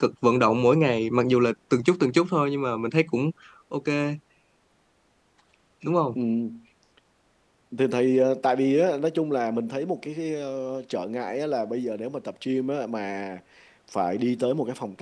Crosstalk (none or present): none